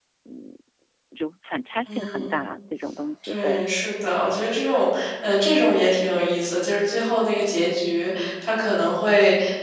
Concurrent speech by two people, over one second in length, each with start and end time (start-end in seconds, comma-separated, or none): none